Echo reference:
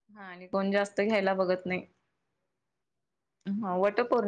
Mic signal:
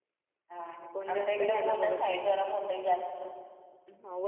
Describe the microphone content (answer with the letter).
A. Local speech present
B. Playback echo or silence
A